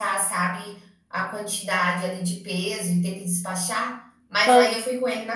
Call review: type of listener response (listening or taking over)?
listening